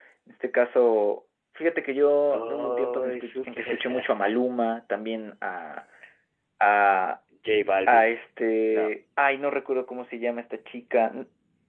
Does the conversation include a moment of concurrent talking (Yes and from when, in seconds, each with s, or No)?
Yes, from 2.3 s